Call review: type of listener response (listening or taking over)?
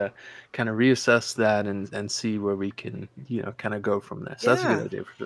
taking over